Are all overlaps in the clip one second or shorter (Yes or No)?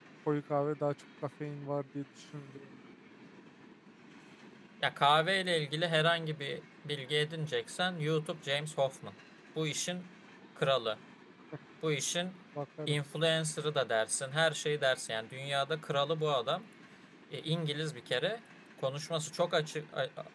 Yes